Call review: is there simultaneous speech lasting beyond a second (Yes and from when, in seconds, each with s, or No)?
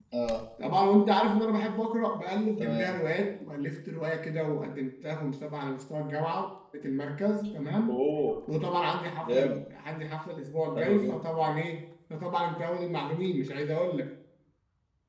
No